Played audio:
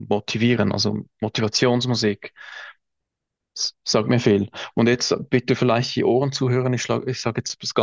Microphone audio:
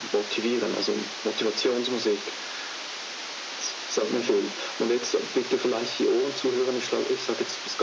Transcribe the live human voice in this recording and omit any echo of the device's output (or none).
none